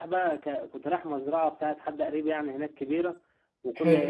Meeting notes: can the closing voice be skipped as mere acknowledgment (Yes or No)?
Yes